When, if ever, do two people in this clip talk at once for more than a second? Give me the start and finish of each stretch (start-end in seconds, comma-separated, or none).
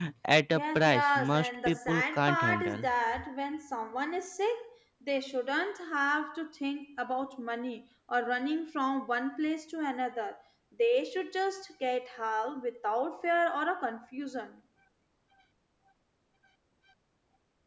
0.6-2.9